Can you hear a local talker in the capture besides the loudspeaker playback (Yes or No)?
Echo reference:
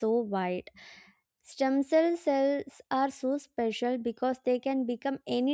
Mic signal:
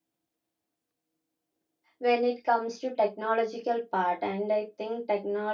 Yes